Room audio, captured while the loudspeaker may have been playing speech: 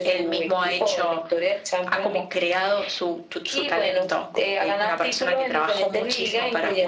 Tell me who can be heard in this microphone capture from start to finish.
echo only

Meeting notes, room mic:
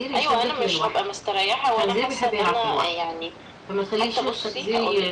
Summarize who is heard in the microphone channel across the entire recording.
both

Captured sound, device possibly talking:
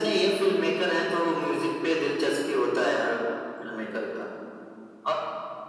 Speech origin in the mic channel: echo only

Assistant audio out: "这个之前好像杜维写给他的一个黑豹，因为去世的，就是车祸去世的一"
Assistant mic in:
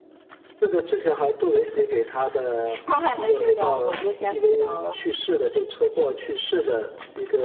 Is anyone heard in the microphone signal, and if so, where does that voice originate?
both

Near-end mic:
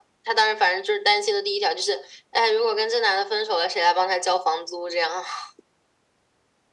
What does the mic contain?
echo only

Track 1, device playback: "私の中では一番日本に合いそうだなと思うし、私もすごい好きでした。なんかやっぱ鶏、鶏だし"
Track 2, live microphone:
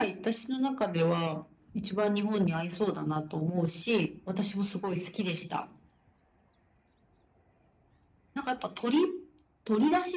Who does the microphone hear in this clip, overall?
echo only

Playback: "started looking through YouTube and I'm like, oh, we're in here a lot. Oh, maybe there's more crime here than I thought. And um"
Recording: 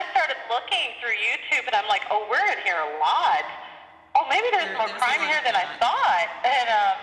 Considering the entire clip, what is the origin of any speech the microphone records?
both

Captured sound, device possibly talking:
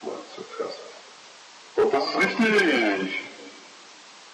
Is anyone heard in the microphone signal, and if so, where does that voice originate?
echo only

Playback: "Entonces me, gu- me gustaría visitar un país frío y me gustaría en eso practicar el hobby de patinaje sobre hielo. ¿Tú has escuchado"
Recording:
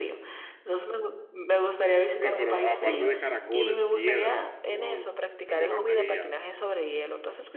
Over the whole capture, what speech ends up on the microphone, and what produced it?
both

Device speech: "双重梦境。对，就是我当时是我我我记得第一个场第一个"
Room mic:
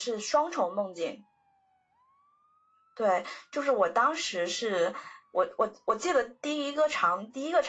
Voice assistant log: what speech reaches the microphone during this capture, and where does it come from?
echo only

